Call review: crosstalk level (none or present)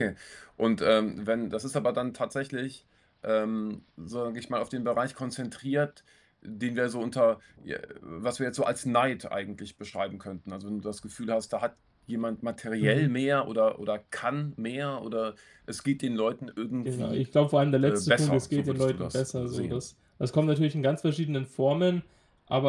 present